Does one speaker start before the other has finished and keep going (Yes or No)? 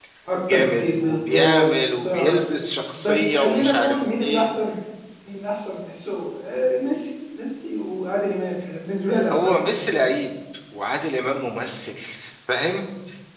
Yes